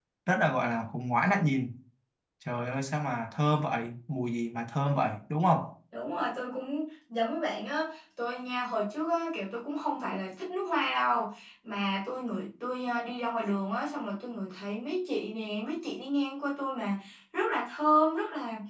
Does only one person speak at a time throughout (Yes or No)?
Yes